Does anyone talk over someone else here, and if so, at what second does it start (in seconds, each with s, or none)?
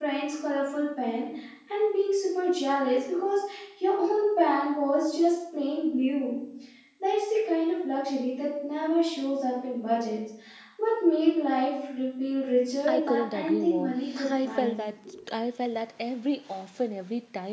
12.9 s